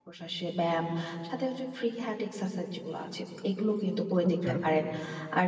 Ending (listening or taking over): listening